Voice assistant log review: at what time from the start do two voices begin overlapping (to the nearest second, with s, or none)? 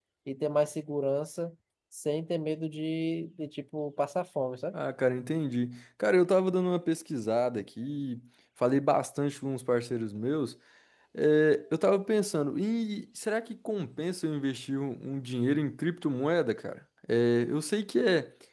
none